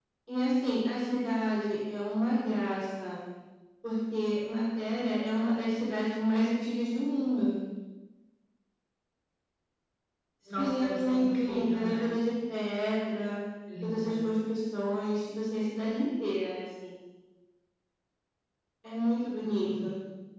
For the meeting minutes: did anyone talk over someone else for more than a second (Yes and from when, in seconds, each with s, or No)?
Yes, from 10.6 s